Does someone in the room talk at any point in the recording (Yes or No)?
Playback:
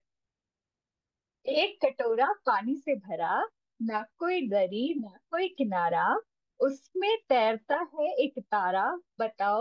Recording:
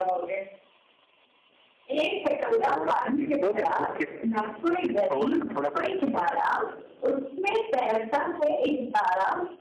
Yes